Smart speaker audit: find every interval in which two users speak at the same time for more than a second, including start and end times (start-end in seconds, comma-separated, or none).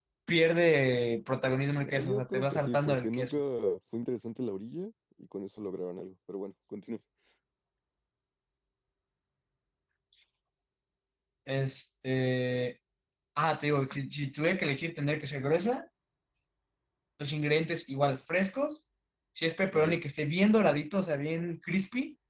1.9-3.4